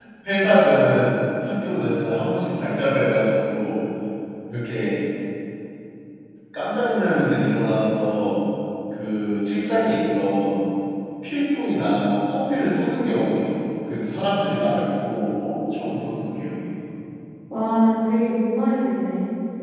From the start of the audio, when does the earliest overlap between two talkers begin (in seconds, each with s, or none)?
none